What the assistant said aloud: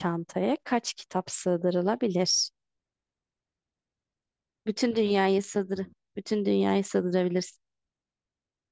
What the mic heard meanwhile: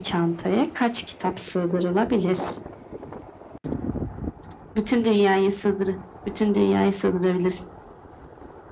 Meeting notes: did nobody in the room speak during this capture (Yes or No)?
Yes